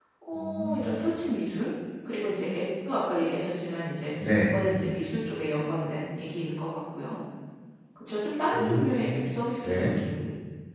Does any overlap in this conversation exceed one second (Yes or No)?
No